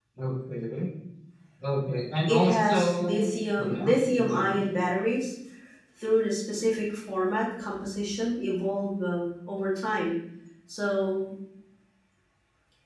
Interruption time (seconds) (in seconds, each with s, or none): 2.3 s